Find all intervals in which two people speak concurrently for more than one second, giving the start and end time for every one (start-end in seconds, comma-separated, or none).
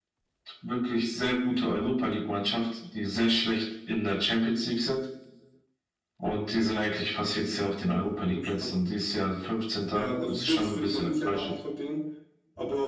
9.9-11.5